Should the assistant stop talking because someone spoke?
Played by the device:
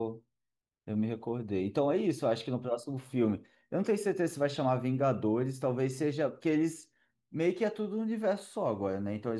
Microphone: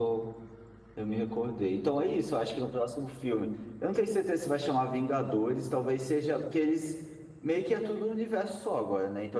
No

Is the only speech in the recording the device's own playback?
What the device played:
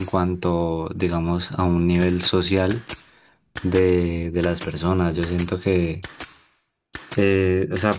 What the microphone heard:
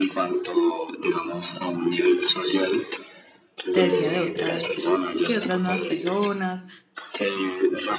No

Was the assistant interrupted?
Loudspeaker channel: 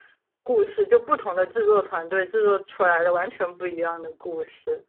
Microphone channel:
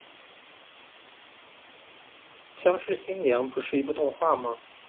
Yes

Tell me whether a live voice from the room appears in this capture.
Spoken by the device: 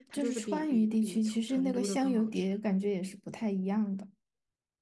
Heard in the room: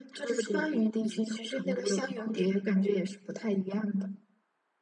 No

